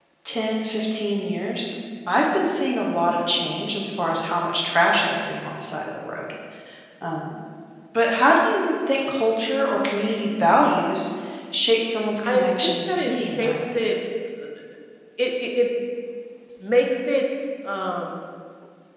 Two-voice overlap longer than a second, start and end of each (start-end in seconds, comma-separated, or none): 12.2-13.8